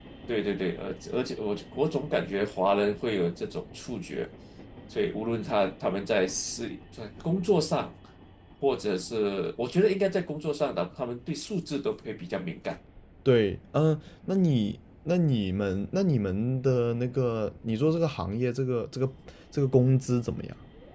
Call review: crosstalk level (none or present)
none